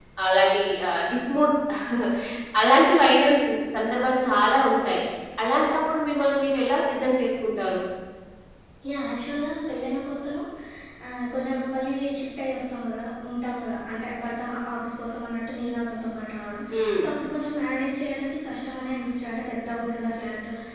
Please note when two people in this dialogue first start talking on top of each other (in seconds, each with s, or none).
none